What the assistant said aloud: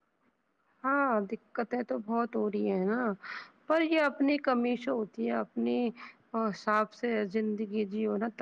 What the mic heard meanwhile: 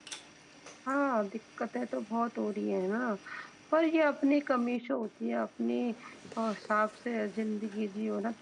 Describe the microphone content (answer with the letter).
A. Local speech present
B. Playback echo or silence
B